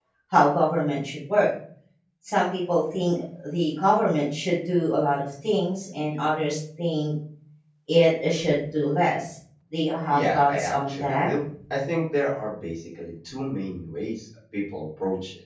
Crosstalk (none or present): present